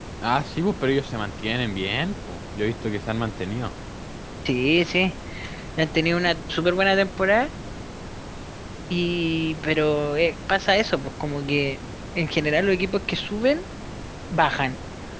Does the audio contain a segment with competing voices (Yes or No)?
No